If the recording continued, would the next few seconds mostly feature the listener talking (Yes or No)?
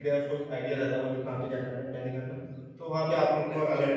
No